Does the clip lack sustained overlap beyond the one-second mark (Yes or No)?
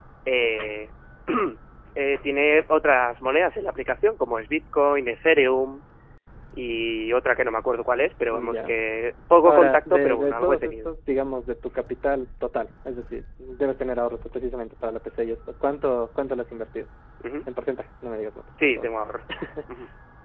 No